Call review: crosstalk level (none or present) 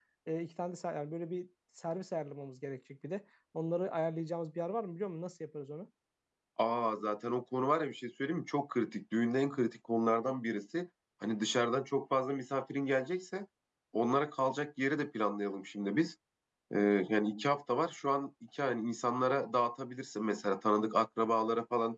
none